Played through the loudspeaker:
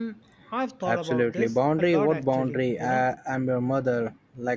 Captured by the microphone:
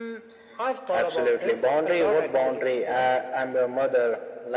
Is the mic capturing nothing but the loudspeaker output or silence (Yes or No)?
Yes